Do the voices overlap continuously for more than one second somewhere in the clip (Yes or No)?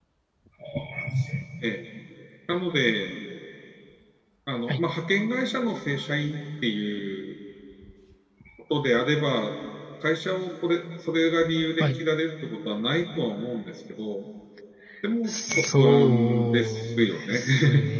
Yes